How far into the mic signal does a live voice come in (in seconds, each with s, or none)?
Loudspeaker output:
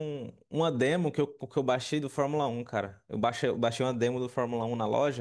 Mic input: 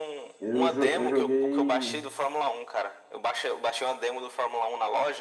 0.4 s